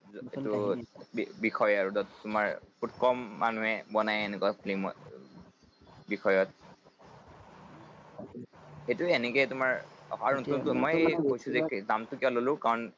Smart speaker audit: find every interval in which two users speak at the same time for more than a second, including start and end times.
10.3-11.6

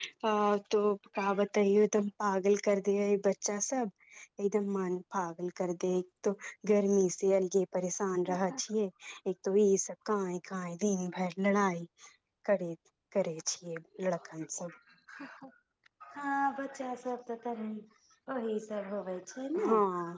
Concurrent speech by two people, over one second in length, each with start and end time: none

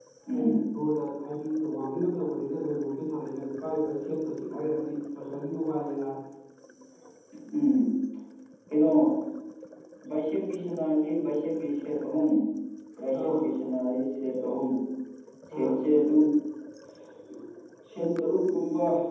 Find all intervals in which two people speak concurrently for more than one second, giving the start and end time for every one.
none

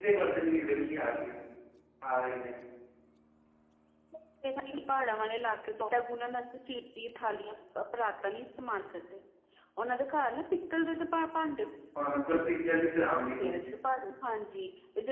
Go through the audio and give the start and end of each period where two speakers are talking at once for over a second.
none

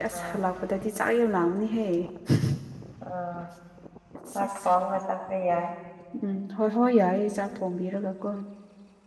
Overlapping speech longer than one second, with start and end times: none

